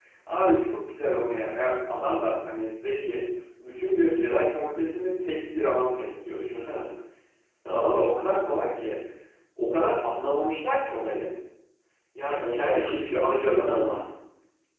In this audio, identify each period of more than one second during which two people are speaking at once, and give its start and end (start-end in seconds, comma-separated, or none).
12.4-14.0